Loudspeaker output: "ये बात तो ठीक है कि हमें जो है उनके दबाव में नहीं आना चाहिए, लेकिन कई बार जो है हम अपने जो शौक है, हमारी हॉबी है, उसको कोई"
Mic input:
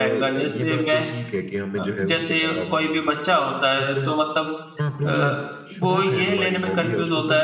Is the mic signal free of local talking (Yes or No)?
No